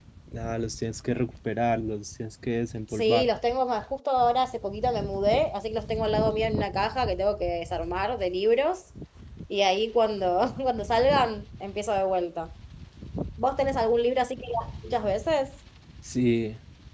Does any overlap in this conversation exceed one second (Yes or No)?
No